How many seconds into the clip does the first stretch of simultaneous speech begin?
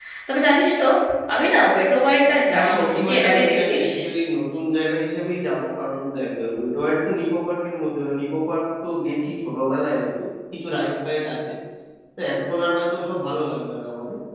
2.5 s

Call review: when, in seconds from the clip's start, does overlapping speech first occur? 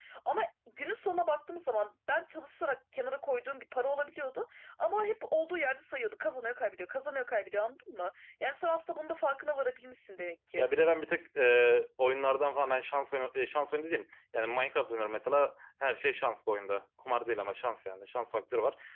none

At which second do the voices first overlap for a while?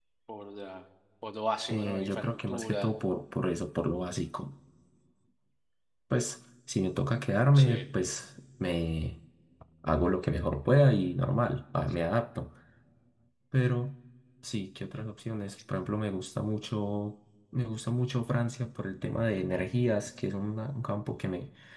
1.7 s

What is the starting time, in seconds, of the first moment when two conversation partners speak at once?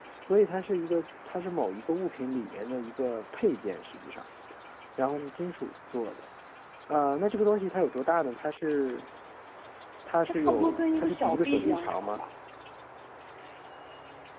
10.2 s

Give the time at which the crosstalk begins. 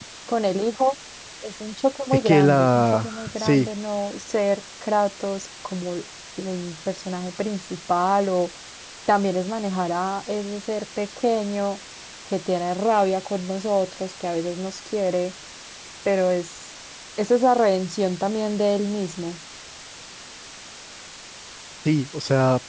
2.2 s

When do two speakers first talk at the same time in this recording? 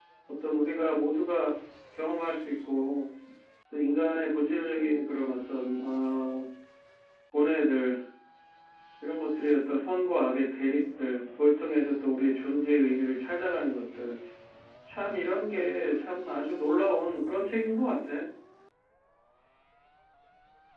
none

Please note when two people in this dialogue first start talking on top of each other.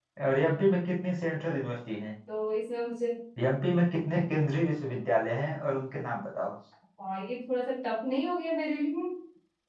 none

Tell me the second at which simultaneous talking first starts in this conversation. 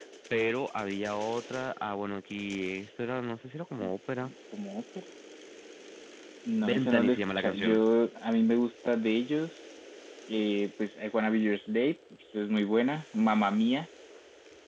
6.6 s

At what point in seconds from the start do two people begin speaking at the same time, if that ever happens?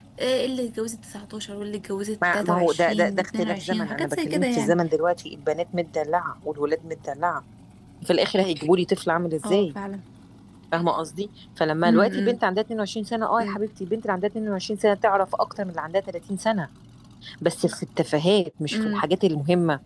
2.3 s

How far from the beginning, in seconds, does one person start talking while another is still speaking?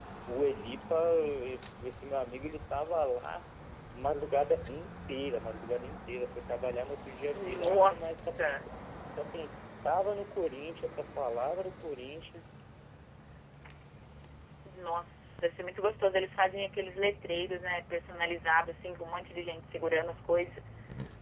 7.3 s

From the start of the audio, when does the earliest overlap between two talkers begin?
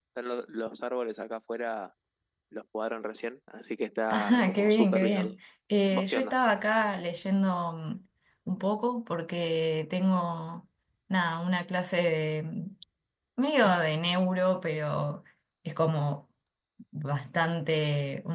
4.1 s

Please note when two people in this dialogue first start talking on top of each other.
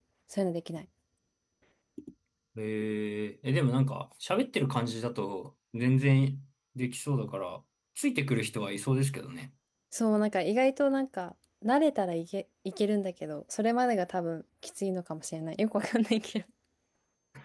none

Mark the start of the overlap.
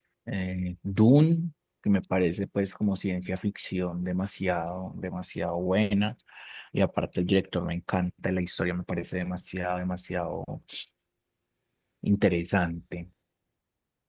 none

